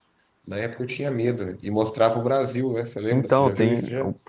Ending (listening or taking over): taking over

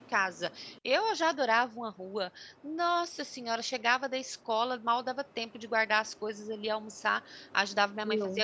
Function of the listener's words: listening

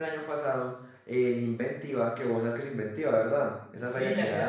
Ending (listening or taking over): taking over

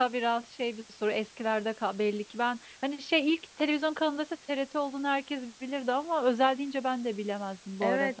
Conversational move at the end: taking over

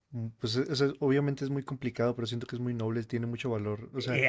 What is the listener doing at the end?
taking over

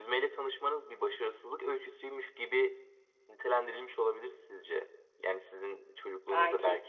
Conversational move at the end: listening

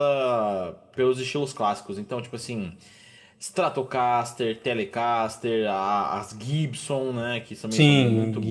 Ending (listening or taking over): taking over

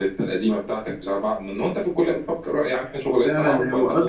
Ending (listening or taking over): taking over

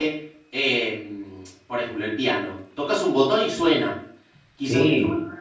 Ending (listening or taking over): listening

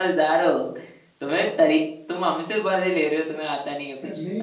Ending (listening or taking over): taking over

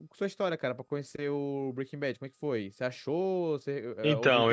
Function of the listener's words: taking over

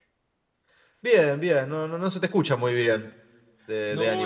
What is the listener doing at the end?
taking over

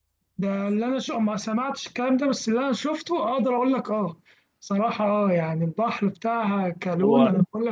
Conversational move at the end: listening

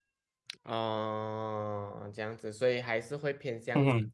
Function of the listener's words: listening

